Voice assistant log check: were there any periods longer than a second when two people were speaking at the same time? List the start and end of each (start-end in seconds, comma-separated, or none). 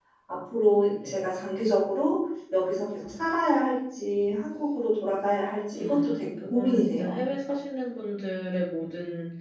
5.8-7.2